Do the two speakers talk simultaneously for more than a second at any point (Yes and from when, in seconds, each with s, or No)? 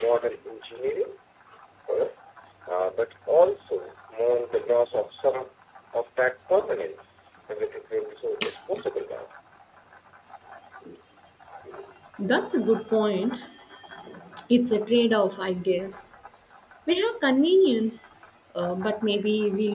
No